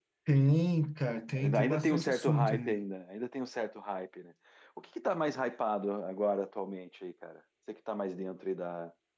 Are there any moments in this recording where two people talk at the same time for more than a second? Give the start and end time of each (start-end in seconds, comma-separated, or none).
1.4-2.8